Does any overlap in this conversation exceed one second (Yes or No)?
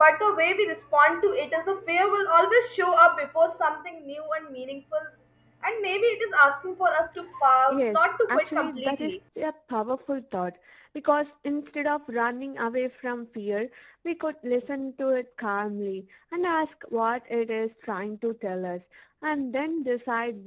Yes